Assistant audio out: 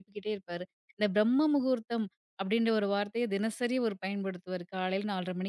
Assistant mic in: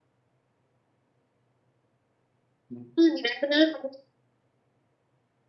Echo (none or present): none